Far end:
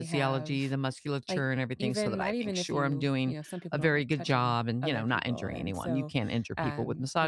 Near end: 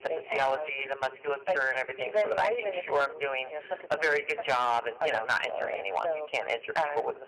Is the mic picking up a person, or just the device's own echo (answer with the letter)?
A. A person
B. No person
B